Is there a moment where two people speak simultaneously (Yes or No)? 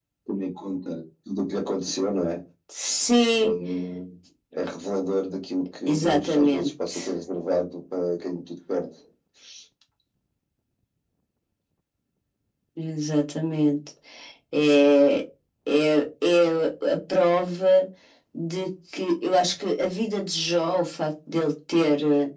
Yes